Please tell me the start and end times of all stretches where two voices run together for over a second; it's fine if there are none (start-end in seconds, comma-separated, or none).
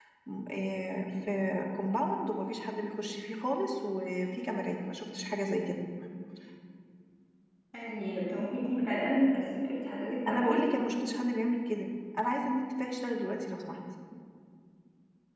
none